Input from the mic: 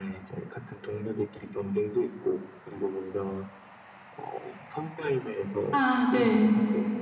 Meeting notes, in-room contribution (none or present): present